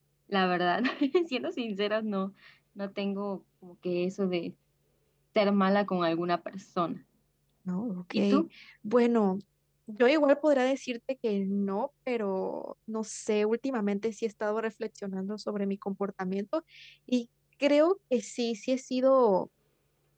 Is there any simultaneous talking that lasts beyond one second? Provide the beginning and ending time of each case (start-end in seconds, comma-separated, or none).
none